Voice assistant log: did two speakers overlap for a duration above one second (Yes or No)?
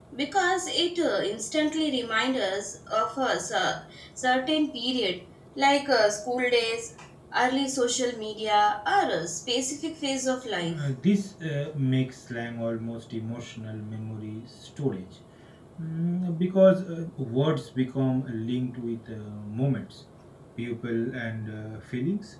No